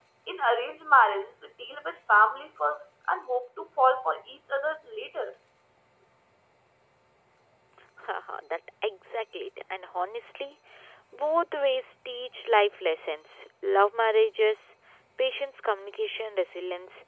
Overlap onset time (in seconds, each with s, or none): none